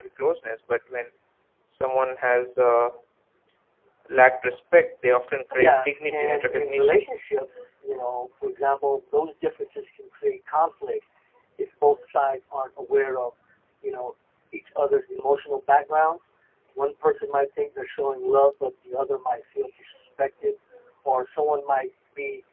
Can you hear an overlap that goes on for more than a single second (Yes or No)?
Yes